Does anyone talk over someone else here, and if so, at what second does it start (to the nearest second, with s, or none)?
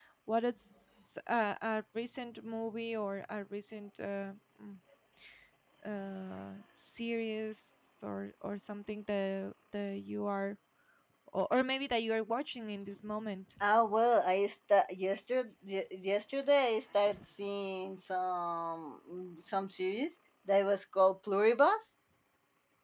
none